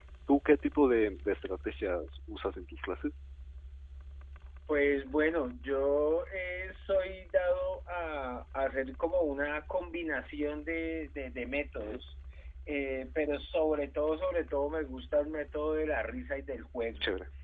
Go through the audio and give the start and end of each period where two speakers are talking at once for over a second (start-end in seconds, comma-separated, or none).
none